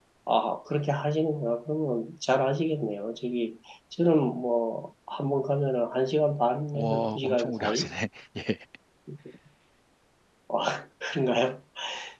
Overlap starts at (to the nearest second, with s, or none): 7 s